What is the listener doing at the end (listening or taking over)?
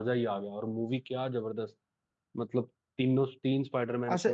taking over